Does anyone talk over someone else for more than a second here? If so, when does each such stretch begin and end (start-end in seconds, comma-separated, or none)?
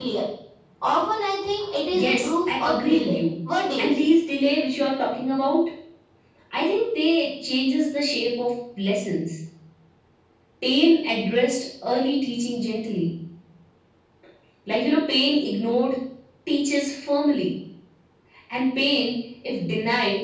1.9-3.2